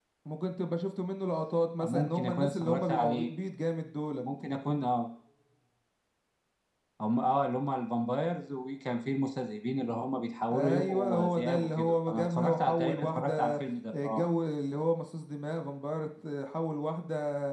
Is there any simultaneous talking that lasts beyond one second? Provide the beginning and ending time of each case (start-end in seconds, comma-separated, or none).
1.8-3.3, 10.5-13.5